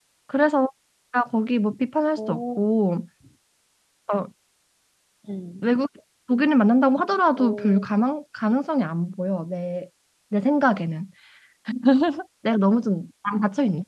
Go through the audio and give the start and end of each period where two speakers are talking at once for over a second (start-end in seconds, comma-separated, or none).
none